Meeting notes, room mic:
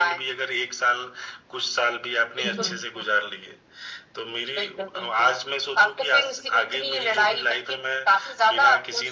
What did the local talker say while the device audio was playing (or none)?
हम्म,